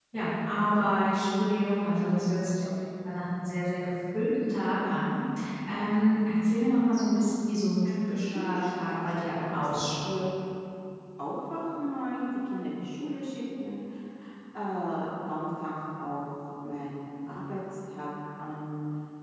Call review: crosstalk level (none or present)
present